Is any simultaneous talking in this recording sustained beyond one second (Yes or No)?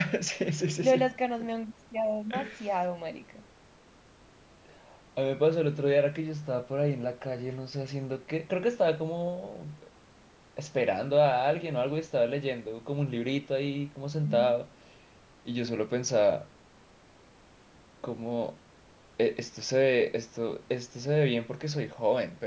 No